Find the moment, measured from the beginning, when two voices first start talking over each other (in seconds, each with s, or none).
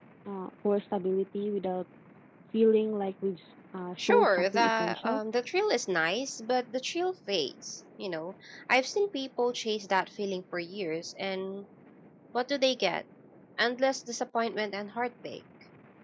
4.0 s